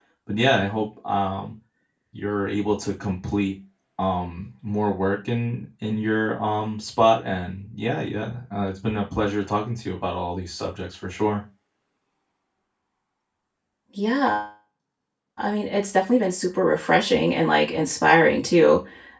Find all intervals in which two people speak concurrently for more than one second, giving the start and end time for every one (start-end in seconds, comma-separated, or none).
none